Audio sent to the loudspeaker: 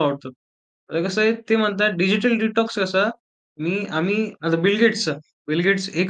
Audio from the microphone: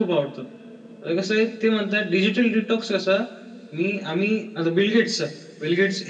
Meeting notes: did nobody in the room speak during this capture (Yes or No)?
Yes